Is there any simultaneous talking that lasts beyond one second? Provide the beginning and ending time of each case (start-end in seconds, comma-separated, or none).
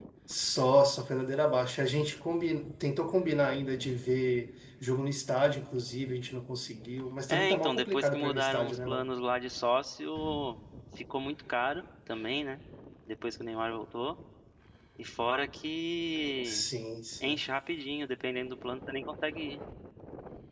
7.3-9.0